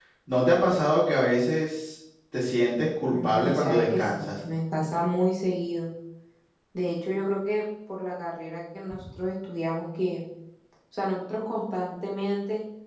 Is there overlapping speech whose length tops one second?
Yes, from 3.1 s

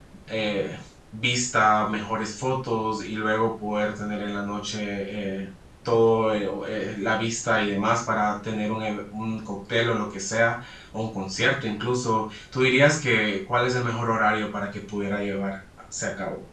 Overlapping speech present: No

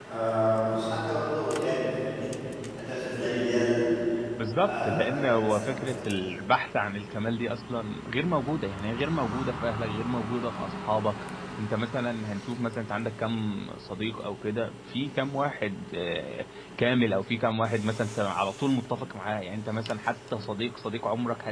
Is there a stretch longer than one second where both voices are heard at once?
Yes, from 4.5 s

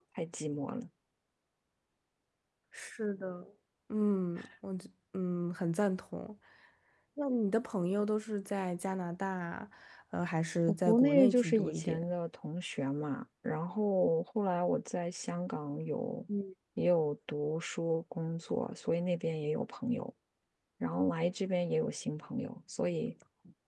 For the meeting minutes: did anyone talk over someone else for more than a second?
Yes, from 10.7 s

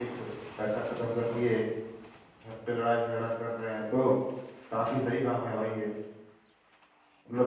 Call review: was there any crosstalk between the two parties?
No

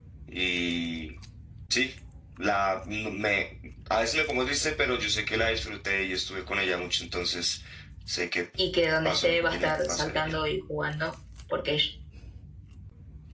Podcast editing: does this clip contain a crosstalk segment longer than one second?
Yes, from 9.0 s

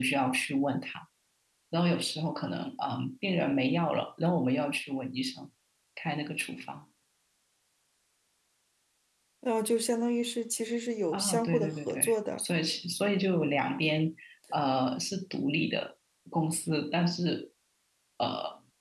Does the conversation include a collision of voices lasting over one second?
Yes, from 11.1 s

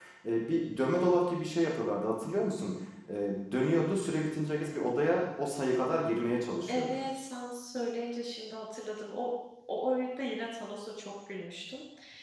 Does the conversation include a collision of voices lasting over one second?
No

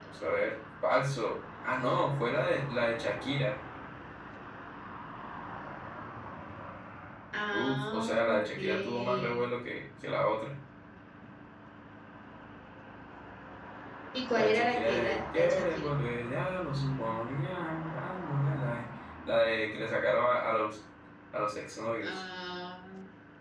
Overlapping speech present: Yes, from 7.5 s

